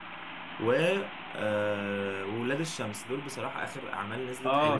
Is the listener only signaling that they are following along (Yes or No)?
No